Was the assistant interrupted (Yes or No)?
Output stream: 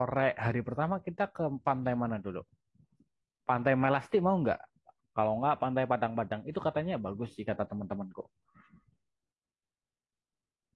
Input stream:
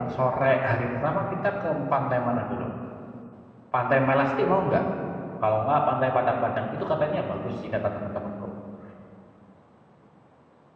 No